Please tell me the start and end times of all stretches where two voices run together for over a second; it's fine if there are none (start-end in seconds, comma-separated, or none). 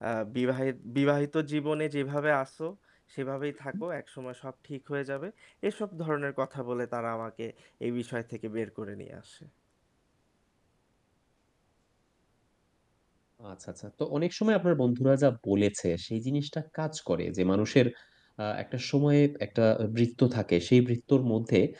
none